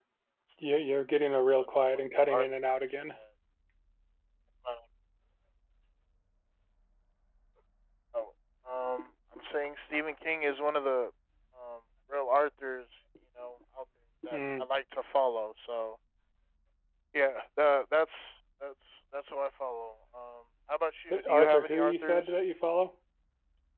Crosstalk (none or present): present